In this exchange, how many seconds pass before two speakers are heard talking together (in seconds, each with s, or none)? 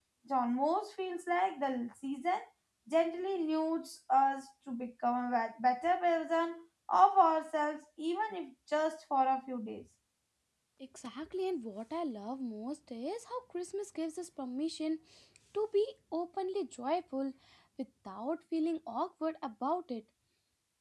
none